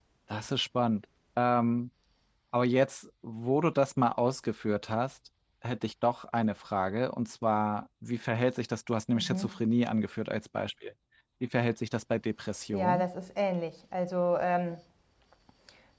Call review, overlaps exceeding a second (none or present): none